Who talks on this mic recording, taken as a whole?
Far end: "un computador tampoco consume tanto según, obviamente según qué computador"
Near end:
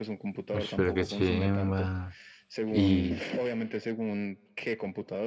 both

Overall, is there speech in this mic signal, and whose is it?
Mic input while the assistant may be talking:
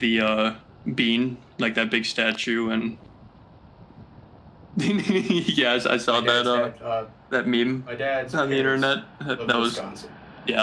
both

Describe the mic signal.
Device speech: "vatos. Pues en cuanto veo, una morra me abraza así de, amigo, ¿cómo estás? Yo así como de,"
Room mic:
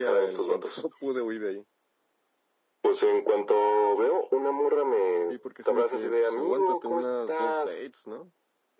both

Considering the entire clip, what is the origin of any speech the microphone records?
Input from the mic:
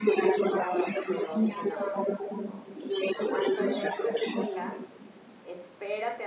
both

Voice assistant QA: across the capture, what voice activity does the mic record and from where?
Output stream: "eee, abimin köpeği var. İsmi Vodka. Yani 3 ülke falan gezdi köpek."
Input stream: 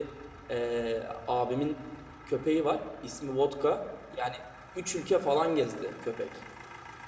echo only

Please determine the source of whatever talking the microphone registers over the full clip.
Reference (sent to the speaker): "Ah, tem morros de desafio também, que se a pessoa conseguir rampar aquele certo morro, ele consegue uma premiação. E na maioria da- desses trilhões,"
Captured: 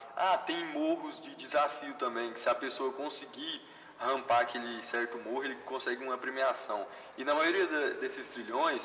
echo only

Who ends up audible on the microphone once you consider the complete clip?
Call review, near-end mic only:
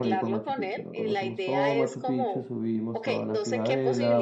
both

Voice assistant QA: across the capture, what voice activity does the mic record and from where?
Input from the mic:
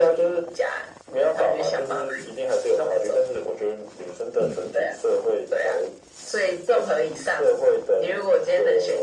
echo only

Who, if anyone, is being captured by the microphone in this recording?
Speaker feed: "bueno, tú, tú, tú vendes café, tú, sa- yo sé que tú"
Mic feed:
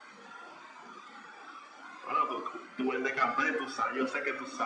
echo only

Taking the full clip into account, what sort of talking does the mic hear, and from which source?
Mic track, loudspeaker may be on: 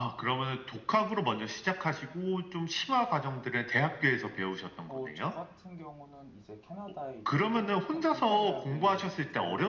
both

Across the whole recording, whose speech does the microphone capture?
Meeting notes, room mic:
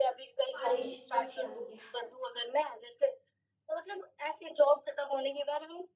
both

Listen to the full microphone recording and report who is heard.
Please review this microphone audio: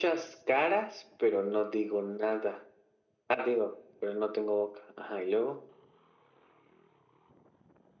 echo only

